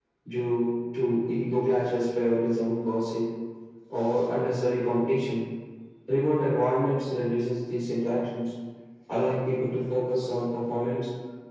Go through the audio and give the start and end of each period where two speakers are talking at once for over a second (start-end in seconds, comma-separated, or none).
none